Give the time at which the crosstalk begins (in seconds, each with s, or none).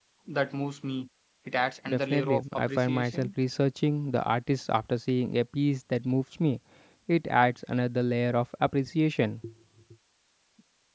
1.9 s